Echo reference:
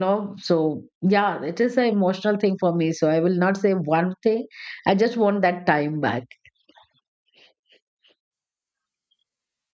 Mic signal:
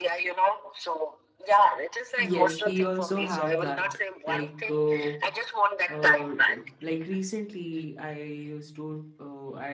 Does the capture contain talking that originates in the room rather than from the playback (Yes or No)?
Yes